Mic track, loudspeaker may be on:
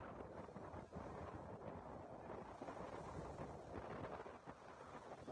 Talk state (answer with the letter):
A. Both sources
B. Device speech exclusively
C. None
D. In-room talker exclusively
C